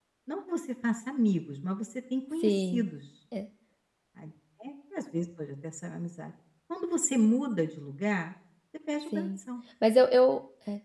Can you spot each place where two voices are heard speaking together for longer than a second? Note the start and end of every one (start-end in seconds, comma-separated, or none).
none